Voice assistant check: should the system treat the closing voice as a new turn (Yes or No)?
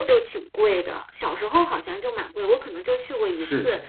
No